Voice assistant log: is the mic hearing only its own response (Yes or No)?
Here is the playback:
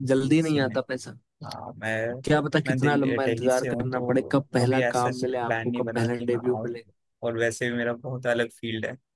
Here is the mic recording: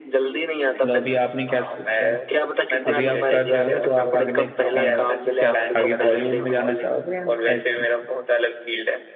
No